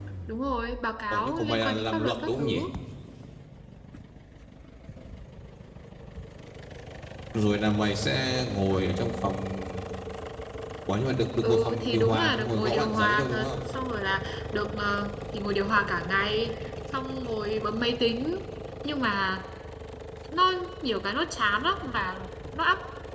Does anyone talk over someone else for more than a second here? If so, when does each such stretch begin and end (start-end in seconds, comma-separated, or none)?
1.1-2.6, 11.4-13.5